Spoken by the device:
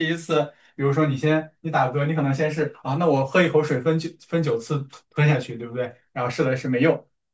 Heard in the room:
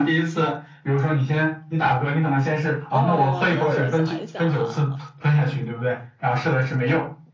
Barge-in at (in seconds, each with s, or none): 2.9 s